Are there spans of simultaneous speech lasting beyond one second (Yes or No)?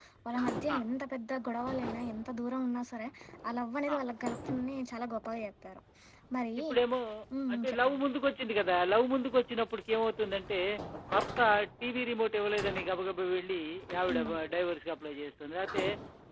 No